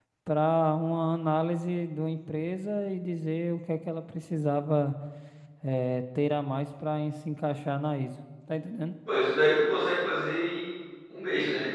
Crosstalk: none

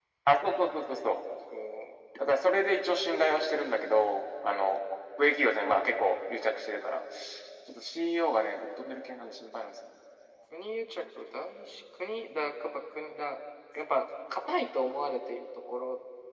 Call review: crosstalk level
none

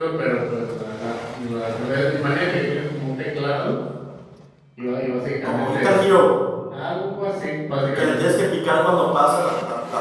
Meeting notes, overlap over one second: none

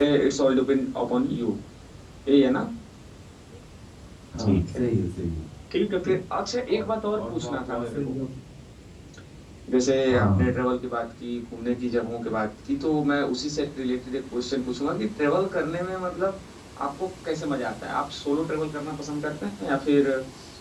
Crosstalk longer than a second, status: present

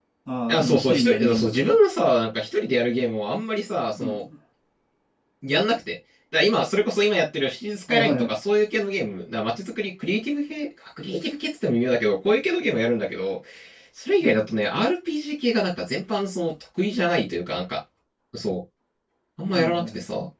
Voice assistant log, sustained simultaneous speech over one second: present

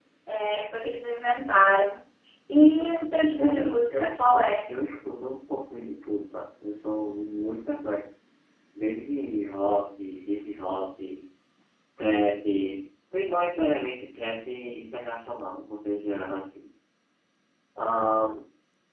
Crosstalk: present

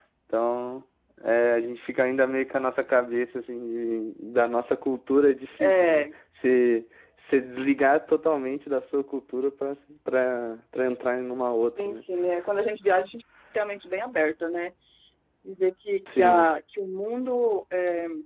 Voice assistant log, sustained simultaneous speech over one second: none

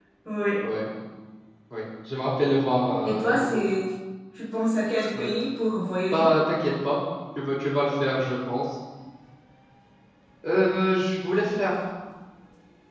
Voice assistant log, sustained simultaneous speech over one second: none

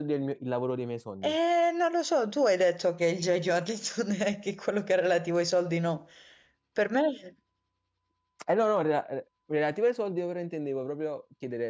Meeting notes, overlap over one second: none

